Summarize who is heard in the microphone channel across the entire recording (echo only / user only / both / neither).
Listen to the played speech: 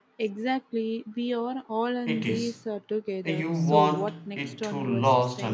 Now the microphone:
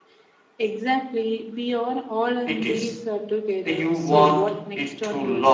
echo only